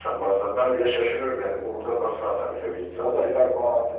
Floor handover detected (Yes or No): Yes